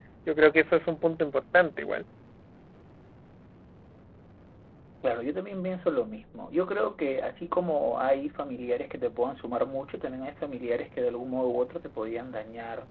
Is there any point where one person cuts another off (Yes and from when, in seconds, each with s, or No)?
No